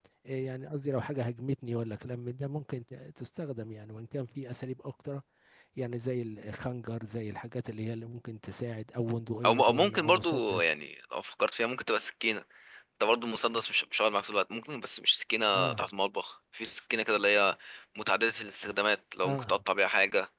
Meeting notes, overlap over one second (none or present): present